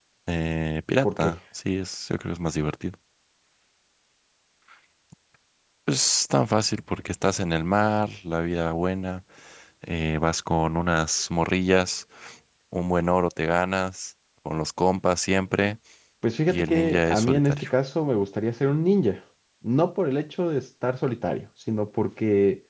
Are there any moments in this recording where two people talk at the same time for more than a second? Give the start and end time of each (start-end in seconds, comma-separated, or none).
16.5-17.7